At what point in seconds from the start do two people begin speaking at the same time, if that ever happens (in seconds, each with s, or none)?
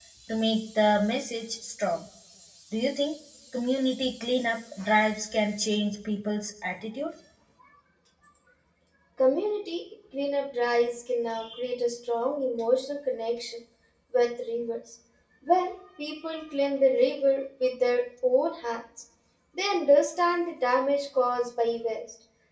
none